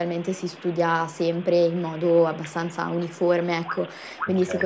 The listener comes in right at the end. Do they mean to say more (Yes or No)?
No